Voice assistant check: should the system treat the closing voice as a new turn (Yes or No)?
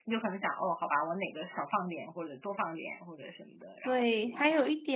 Yes